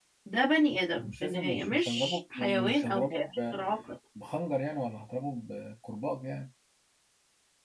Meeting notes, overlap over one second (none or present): present